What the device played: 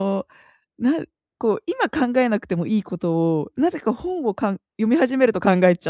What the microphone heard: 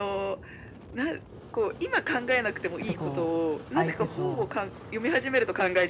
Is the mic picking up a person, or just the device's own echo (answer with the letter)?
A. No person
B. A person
B